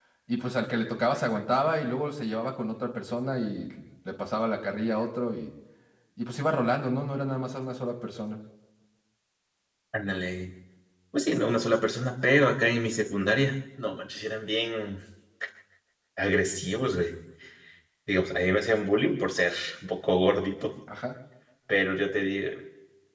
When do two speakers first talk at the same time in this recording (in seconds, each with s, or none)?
none